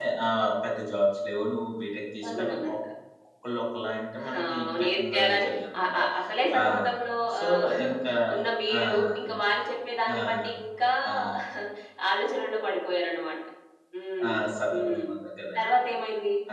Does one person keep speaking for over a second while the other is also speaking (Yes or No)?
Yes